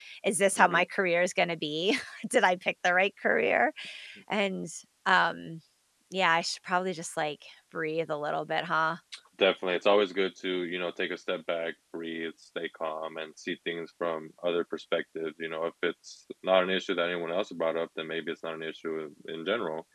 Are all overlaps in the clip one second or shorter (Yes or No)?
Yes